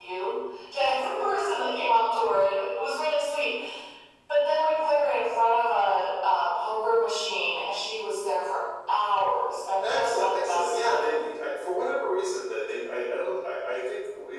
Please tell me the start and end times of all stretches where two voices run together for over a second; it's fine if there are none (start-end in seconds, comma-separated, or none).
9.8-11.2